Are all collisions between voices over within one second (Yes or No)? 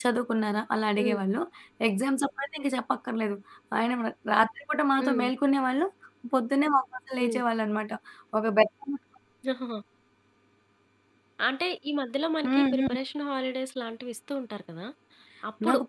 Yes